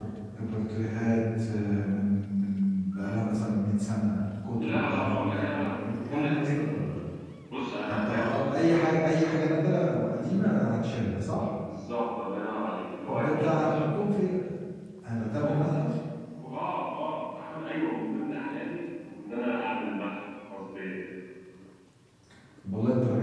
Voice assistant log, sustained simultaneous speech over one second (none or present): present